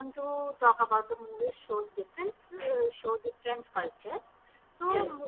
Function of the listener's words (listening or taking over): listening